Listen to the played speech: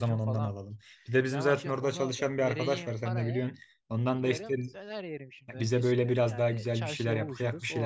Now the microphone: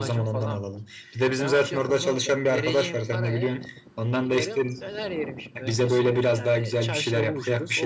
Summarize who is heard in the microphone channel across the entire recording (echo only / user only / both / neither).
echo only